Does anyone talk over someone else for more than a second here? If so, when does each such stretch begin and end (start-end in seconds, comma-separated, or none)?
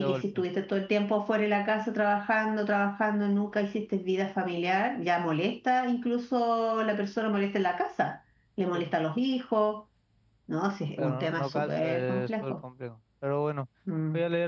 11.0-12.5